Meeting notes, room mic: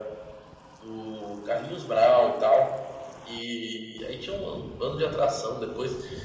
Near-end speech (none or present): none